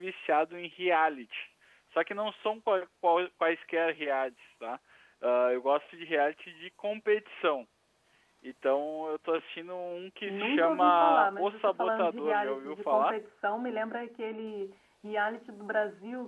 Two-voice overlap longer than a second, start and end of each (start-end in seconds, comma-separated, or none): 10.3-13.2